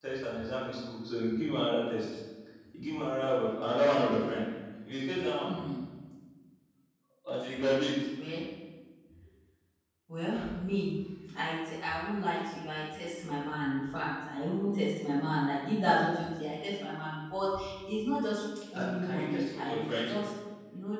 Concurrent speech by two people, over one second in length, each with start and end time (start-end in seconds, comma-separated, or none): 18.7-20.1